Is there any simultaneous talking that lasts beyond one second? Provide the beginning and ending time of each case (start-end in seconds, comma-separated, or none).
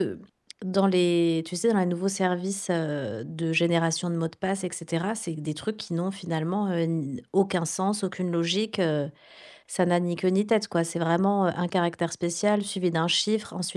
none